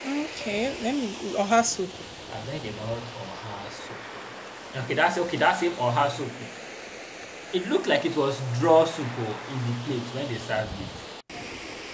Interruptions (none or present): none